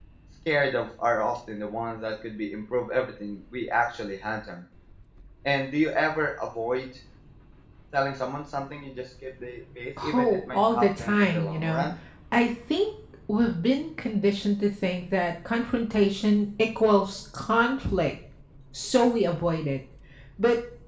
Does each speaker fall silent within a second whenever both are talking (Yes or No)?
No